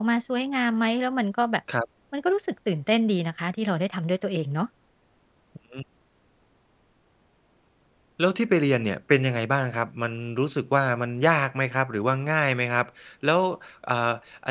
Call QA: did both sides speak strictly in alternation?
Yes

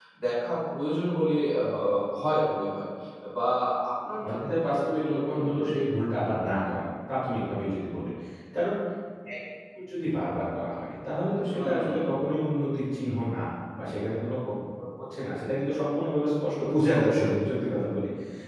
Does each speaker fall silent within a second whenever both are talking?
No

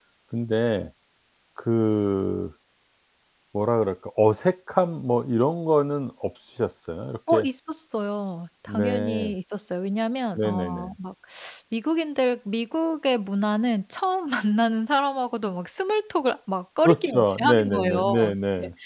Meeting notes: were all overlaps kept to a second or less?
No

